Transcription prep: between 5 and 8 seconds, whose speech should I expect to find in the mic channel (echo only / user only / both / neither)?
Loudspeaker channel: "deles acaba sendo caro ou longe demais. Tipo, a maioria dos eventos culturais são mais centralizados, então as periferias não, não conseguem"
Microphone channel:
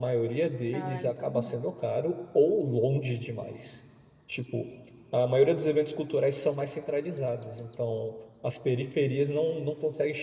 echo only